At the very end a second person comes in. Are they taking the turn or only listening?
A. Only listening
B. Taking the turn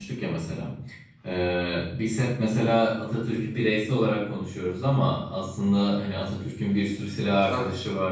A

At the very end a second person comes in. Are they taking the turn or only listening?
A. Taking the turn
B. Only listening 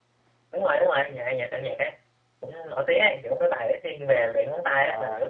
A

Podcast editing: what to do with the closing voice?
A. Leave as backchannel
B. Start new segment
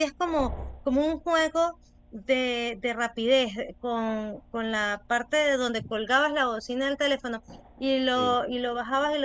A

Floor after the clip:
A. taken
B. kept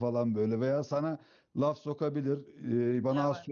B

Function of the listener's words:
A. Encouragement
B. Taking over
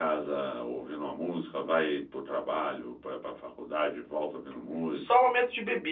B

